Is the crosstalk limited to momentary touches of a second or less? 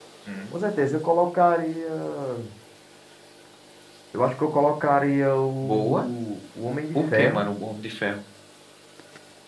Yes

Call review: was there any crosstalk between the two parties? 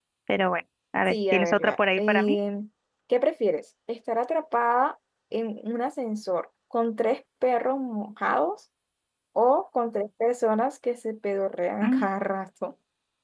Yes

